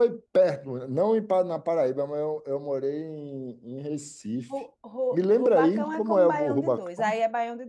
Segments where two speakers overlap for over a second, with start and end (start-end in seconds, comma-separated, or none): 5.1-7.1